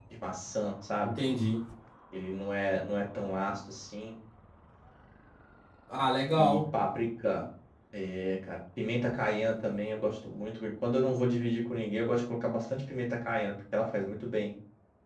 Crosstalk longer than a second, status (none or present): none